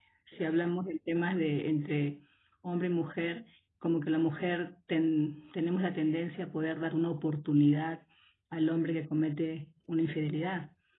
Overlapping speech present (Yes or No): No